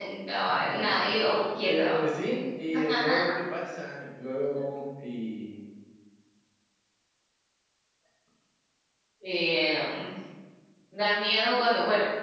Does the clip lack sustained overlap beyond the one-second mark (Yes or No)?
Yes